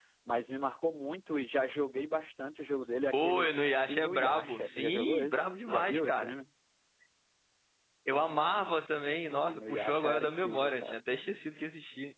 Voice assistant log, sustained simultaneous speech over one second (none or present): present